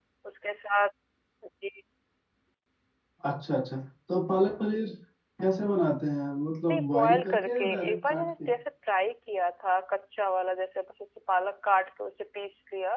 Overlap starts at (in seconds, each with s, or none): 6.7 s